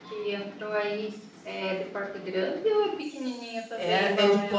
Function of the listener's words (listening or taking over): taking over